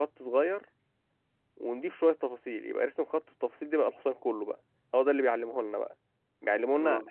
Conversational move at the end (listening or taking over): listening